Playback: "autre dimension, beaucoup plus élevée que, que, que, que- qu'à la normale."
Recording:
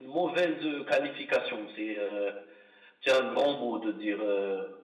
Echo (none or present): none